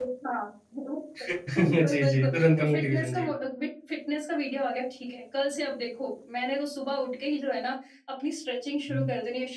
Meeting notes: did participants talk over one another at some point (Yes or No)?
Yes